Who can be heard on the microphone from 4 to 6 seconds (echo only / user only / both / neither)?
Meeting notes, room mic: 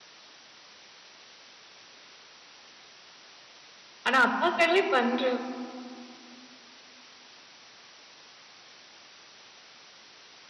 user only